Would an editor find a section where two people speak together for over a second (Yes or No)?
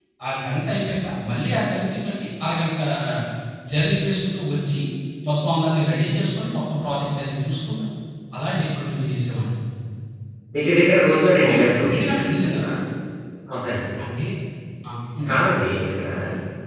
No